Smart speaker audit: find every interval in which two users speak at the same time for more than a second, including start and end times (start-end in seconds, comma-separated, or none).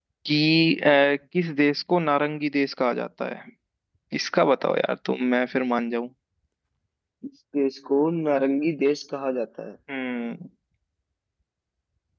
none